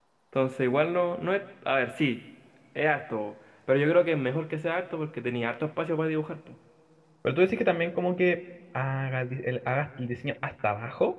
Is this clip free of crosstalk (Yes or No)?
Yes